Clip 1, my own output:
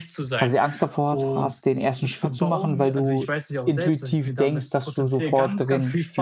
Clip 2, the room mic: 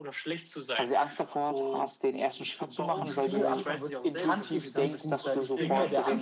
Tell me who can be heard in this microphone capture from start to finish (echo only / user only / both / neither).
both